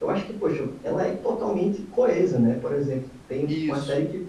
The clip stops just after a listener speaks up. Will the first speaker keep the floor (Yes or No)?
Yes